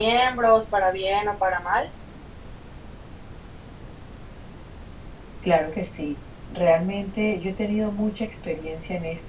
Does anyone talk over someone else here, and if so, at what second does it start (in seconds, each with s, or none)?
none